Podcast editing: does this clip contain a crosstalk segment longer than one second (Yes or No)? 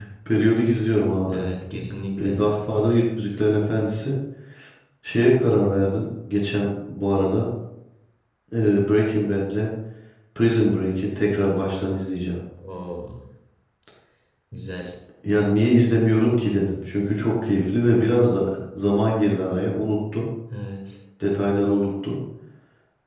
No